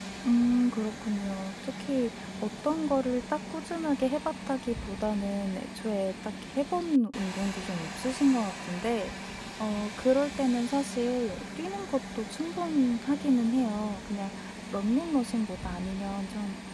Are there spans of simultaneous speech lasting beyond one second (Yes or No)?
No